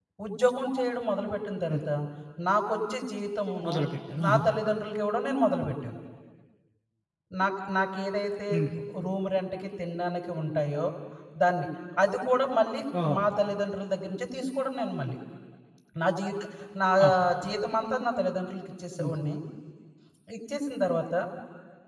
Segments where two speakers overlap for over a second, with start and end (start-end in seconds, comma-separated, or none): none